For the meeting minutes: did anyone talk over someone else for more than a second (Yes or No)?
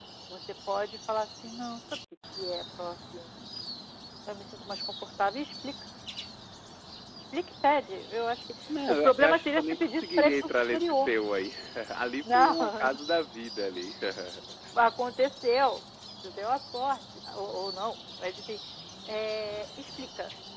Yes